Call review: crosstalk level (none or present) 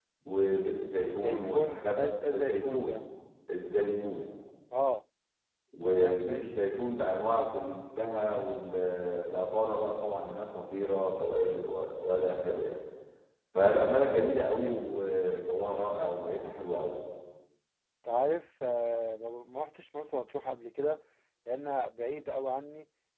present